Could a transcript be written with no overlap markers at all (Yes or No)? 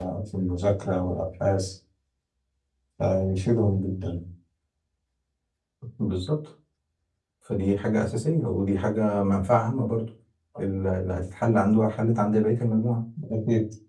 Yes